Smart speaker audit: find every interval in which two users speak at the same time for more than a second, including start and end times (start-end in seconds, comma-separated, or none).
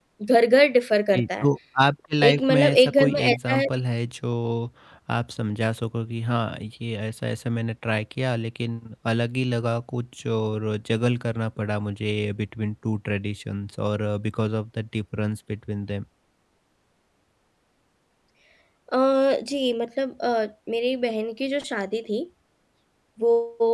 2.3-3.6